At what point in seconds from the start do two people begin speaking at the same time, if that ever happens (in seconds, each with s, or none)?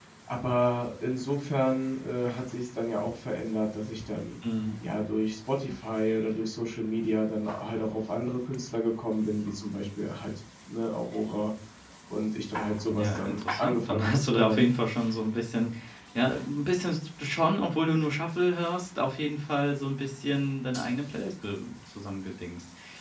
12.9 s